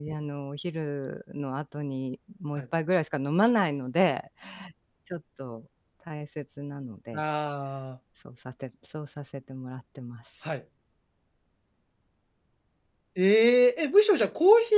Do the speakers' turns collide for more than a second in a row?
No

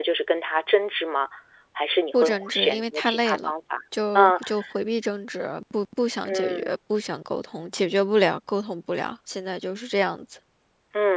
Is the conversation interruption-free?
No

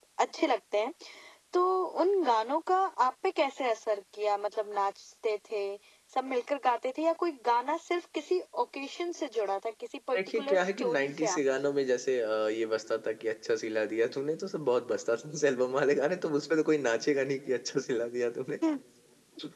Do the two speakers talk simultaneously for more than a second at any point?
Yes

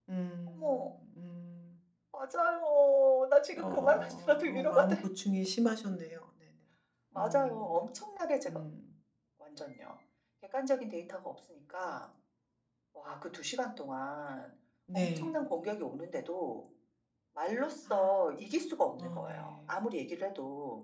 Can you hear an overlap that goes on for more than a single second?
Yes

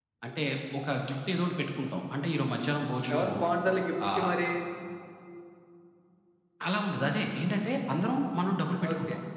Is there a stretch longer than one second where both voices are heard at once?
No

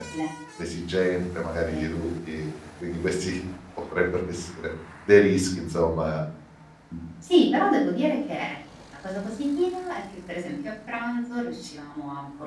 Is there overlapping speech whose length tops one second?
No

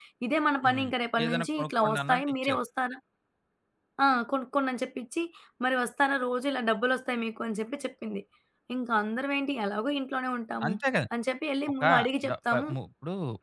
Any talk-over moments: Yes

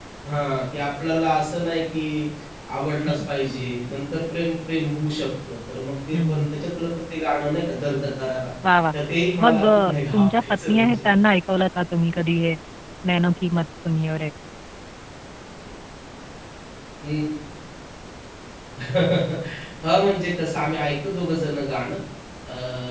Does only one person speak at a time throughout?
No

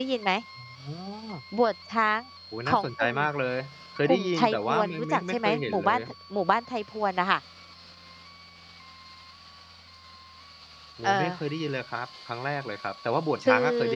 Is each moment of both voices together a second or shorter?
No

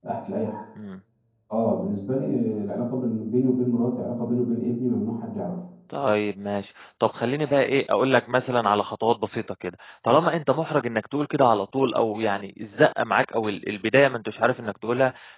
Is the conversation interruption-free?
Yes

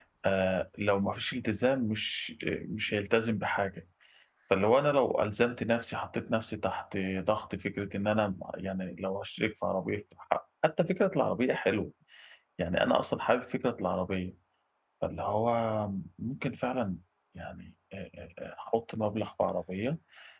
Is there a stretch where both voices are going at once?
No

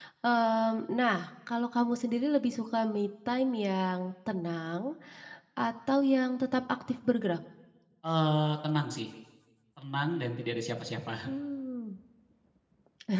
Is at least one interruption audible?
No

